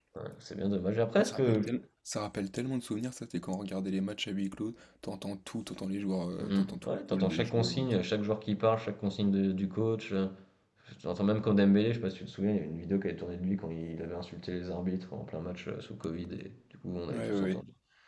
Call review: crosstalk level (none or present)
present